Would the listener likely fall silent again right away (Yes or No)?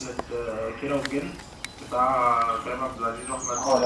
Yes